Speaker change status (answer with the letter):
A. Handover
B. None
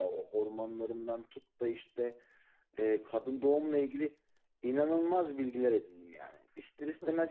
B